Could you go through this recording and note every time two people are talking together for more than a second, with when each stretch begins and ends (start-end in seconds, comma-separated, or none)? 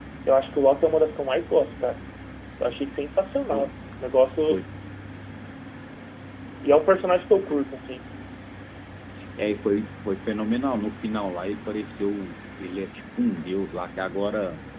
none